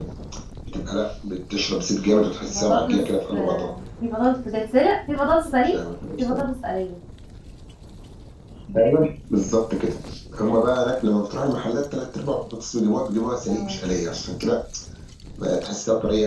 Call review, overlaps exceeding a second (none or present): present